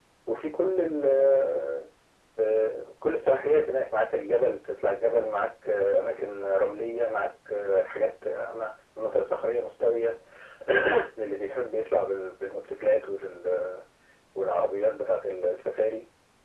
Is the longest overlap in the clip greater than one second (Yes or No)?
No